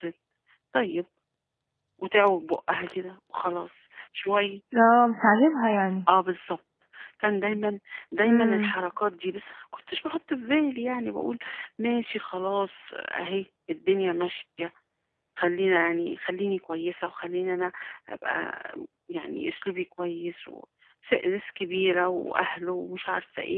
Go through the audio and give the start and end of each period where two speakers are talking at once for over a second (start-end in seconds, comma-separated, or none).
none